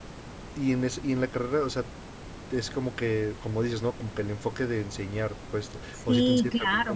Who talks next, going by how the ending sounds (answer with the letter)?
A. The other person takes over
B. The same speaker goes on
A